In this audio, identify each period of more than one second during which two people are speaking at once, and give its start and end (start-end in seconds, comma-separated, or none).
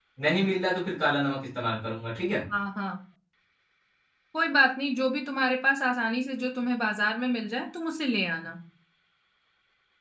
none